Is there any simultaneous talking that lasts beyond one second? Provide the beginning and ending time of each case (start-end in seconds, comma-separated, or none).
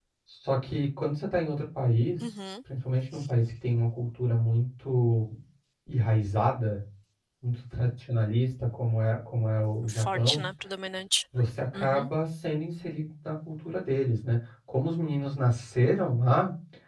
none